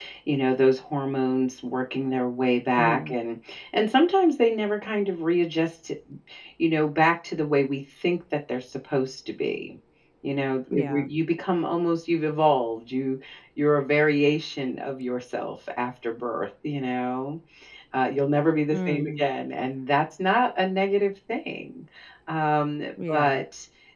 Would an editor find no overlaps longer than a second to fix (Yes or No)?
Yes